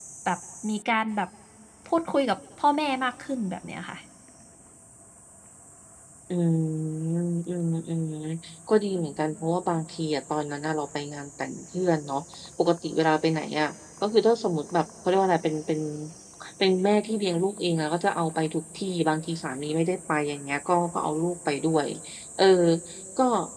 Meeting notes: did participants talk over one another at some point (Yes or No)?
No